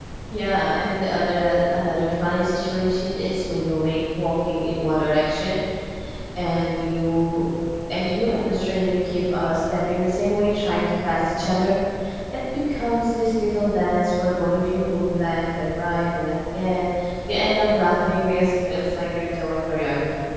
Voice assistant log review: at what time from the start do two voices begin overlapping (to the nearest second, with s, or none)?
none